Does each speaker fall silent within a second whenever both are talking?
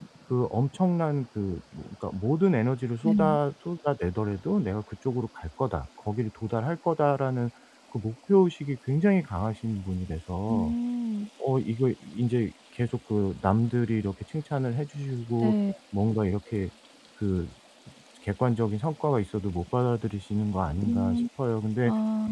Yes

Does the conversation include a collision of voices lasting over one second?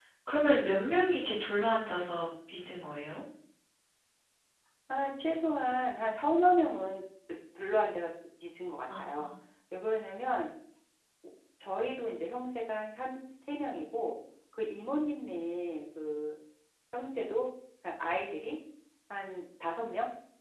No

